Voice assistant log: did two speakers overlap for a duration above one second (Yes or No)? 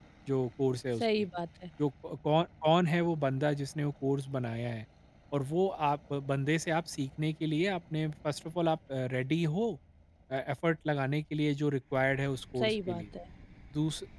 No